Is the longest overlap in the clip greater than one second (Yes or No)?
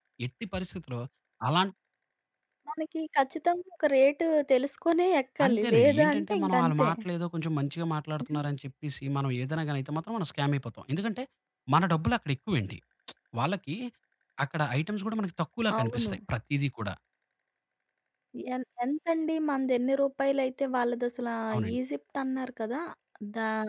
Yes